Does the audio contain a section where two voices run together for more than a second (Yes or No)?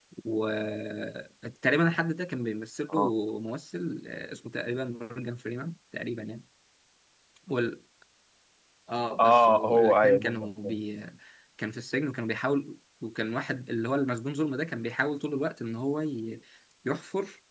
Yes